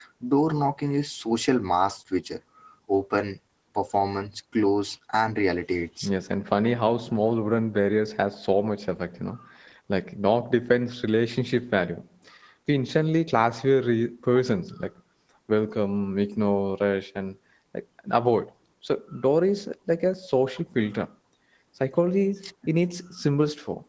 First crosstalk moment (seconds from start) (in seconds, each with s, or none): none